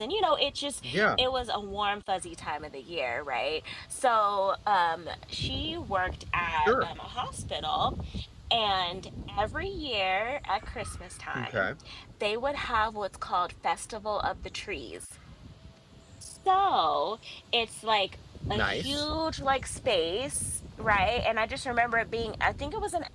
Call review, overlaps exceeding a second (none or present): none